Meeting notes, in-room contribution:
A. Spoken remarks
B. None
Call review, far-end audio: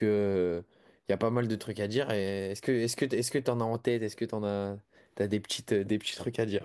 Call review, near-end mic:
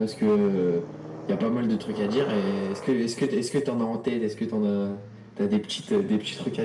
B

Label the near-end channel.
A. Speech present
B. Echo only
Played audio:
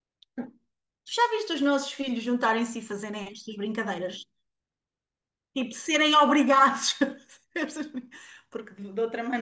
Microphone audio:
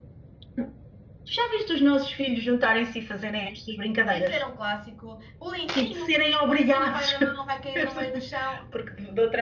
A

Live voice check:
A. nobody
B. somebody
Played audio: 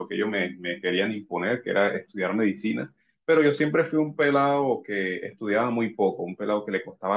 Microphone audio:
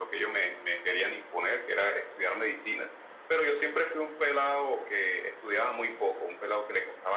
A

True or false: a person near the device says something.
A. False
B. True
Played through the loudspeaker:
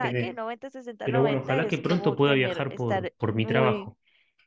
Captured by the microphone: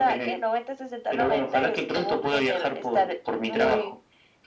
A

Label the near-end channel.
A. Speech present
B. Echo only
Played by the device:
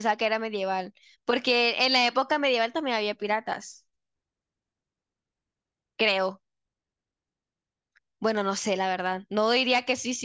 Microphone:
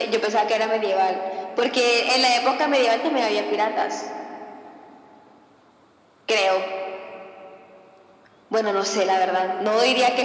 B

